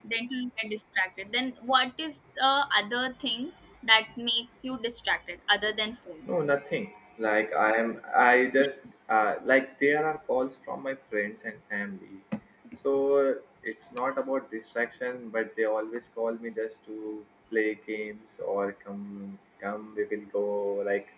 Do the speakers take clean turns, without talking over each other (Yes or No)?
Yes